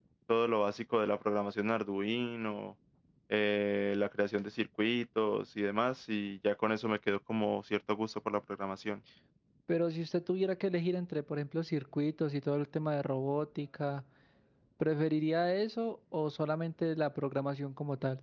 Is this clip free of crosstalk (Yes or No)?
Yes